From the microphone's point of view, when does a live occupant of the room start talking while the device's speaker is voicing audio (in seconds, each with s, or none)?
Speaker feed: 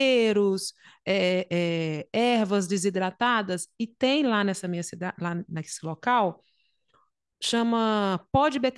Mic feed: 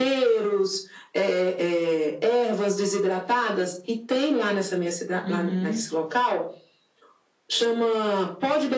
5.3 s